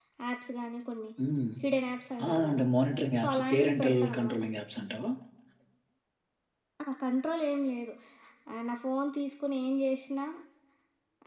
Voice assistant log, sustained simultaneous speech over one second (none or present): present